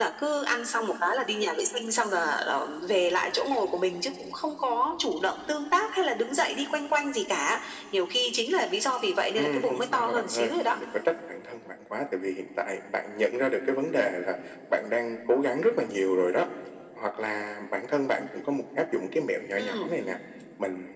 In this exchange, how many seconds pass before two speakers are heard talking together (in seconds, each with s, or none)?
9.4 s